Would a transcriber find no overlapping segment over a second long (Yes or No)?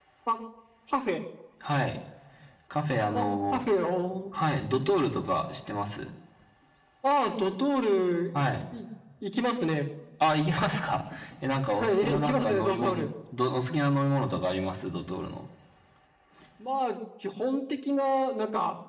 No